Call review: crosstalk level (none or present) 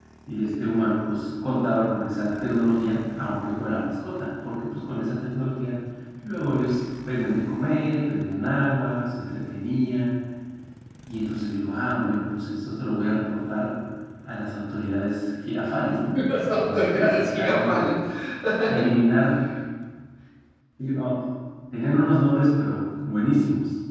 present